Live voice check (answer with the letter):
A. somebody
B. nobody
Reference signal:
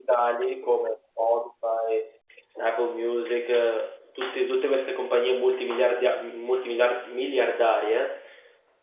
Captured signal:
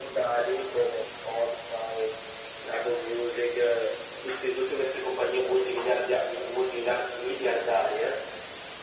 B